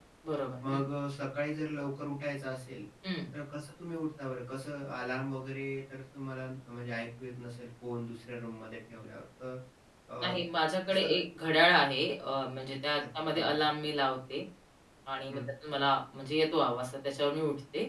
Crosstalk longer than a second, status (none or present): none